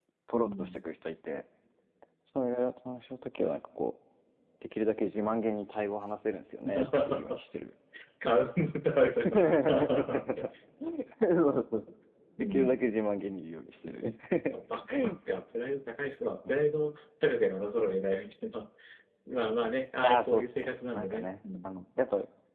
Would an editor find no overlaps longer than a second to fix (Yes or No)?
No